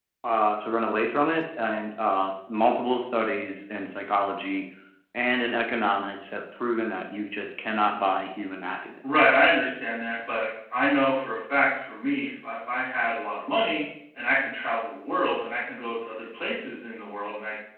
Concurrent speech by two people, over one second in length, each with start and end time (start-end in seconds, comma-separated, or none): none